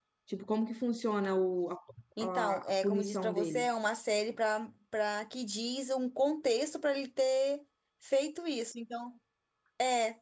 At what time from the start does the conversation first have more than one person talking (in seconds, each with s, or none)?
2.2 s